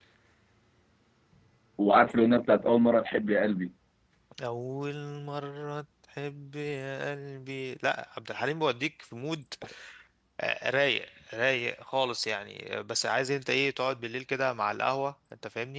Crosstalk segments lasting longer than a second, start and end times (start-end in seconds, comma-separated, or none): none